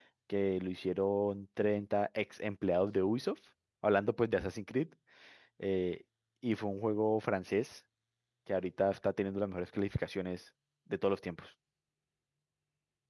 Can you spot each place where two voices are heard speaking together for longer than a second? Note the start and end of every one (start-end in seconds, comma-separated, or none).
none